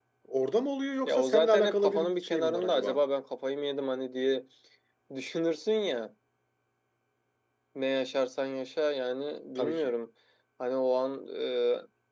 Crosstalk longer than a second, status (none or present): present